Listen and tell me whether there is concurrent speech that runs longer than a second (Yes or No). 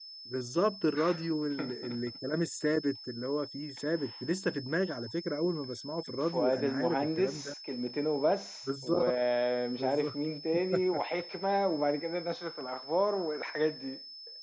Yes